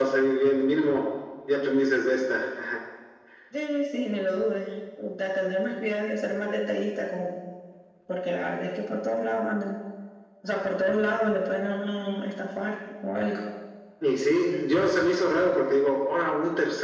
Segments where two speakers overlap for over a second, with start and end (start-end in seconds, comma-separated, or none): none